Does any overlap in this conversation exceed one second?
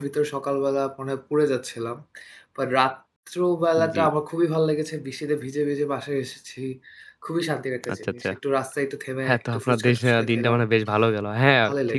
Yes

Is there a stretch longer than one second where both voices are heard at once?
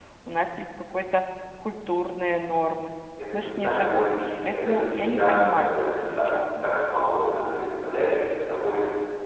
Yes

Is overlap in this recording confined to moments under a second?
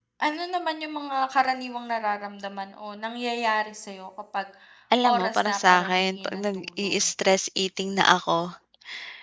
No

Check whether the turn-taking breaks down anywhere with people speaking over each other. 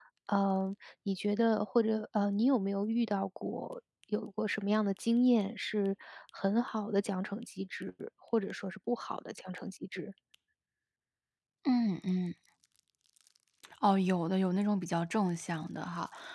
No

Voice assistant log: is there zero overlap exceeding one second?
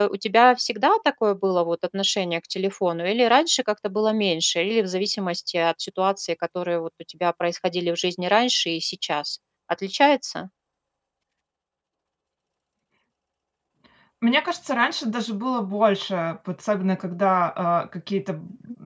Yes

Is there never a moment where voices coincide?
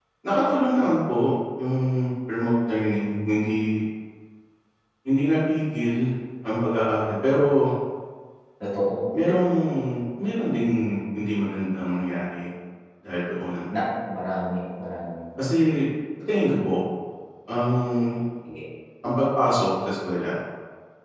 Yes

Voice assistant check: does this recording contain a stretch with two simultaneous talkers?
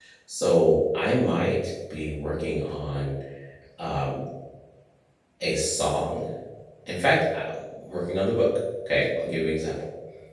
No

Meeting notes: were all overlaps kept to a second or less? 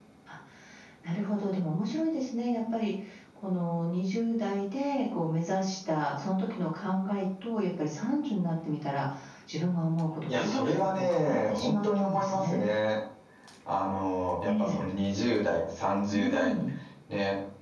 No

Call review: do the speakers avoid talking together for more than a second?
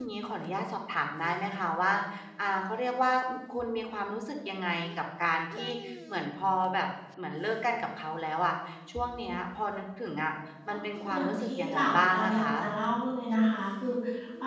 No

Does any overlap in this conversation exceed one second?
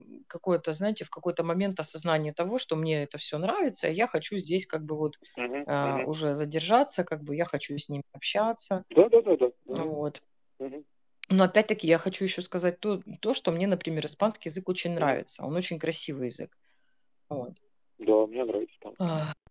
No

